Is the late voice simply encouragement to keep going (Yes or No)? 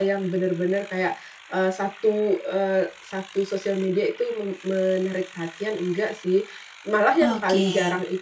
Yes